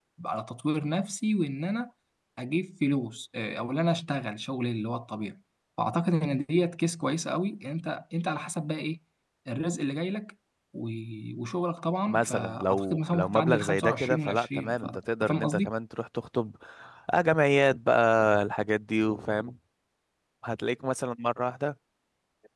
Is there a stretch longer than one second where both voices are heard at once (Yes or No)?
Yes